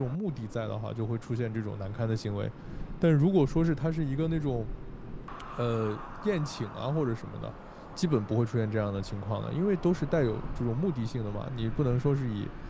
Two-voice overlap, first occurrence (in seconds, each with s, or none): none